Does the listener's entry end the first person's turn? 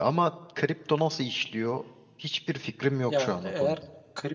Yes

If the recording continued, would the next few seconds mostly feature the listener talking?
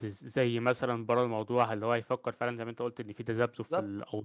No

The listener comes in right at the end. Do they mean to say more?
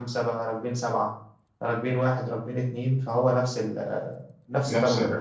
Yes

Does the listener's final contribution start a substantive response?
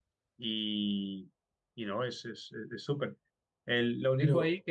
No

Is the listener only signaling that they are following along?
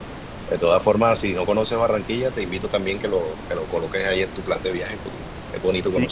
No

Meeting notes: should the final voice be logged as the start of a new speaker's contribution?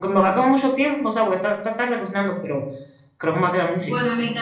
Yes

